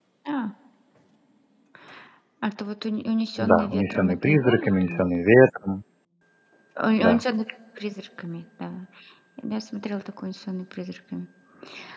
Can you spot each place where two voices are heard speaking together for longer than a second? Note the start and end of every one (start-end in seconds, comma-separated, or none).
3.4-5.1